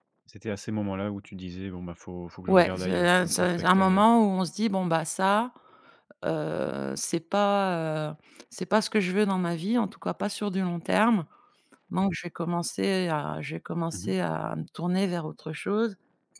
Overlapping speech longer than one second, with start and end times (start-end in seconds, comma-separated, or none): 2.5-4.0